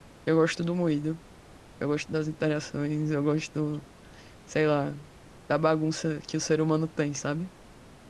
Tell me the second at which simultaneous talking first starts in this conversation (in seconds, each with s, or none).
none